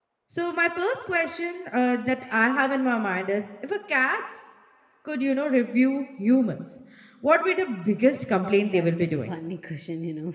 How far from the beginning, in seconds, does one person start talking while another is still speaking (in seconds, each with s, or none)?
8.1 s